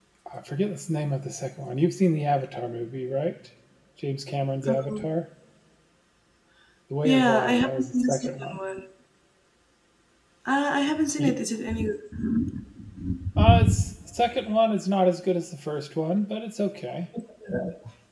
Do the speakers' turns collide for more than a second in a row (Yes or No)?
Yes